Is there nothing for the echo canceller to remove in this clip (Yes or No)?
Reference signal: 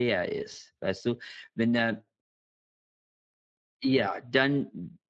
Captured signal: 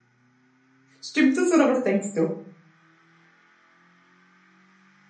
Yes